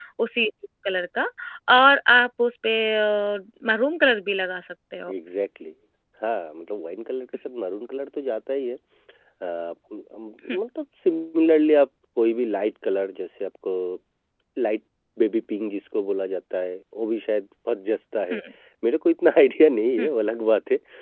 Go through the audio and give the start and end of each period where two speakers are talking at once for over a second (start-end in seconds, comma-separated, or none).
none